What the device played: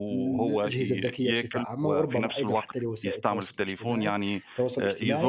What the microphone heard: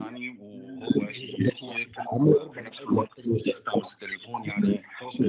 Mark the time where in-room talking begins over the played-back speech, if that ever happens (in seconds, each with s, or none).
none